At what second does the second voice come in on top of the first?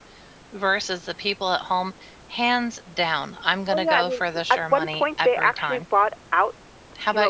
4 s

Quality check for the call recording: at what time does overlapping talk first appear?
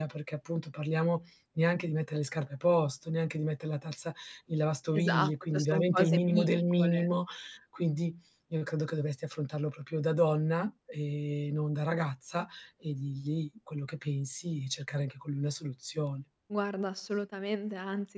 5 s

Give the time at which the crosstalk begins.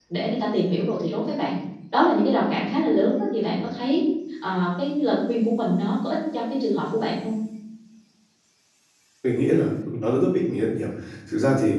none

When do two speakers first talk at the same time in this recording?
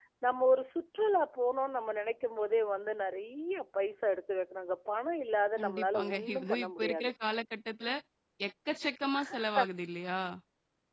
6 s

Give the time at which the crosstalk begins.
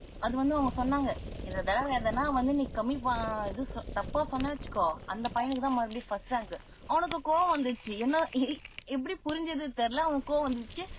none

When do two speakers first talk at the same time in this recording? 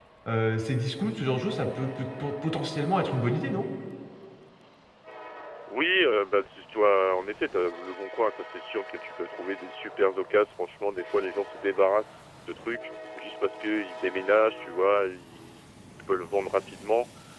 none

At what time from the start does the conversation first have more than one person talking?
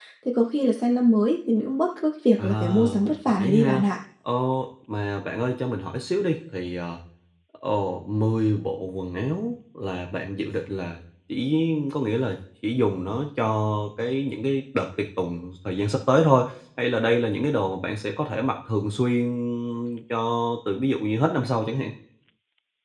2 s

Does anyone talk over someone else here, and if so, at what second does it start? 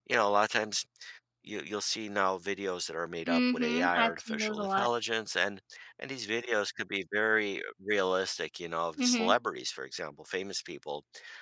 3 s

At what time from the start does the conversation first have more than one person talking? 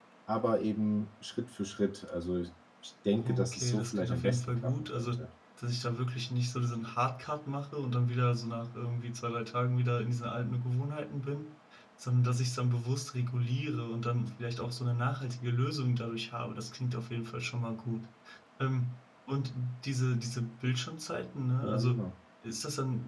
3 s

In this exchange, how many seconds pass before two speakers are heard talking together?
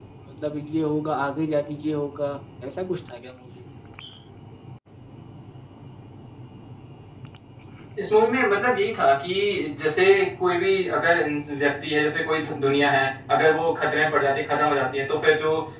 none

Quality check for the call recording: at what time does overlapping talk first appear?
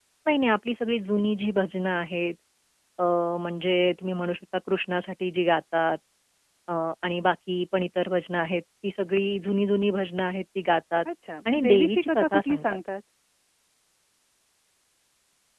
12 s

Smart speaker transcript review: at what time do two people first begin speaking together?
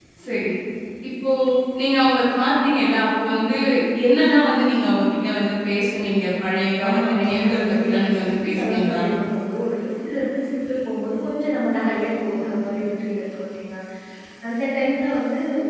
7 s

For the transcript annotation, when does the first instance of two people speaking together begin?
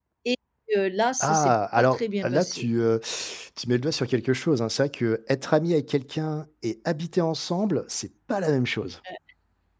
1 s

